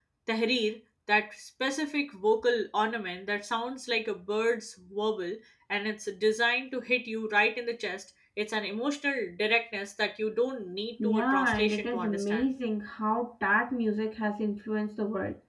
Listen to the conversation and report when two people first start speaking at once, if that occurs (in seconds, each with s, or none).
11.0 s